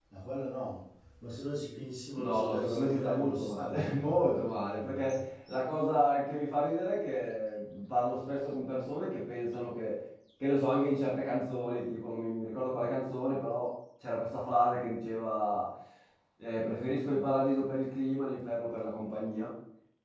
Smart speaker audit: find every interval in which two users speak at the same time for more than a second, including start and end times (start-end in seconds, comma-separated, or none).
2.1-5.2